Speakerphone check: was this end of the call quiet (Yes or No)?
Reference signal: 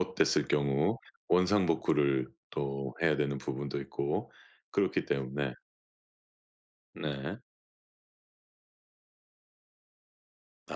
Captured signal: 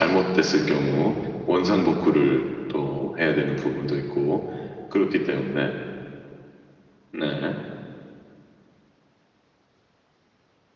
Yes